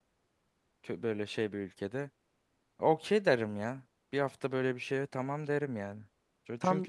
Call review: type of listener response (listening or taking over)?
listening